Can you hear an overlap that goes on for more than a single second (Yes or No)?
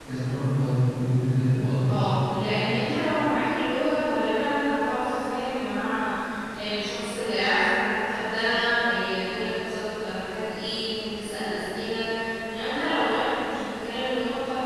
No